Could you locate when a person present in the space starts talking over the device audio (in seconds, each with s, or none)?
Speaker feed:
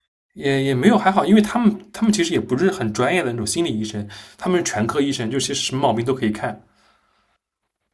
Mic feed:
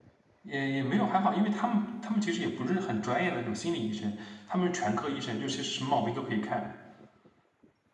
none